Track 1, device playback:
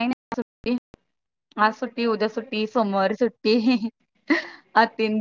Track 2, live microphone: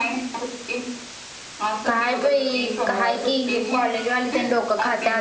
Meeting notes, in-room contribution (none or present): present